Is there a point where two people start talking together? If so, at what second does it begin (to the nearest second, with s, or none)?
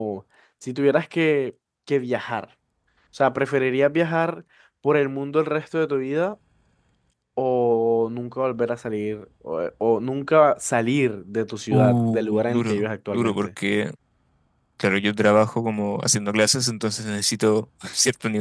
12 s